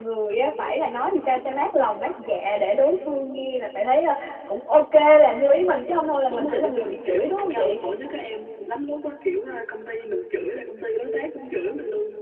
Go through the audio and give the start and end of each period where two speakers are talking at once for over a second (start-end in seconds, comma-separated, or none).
6.3-7.6